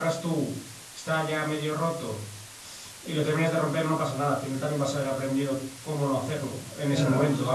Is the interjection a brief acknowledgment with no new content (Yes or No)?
No